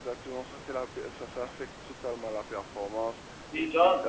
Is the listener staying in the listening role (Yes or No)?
No